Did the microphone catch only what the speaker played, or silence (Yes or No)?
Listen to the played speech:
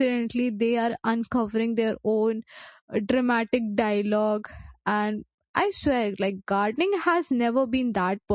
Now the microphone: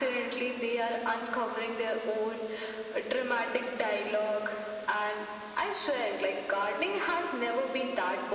Yes